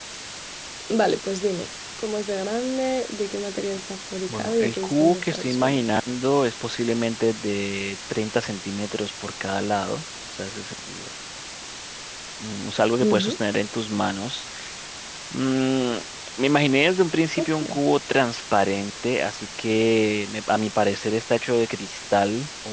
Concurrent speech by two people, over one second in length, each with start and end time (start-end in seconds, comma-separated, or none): 4.3-5.8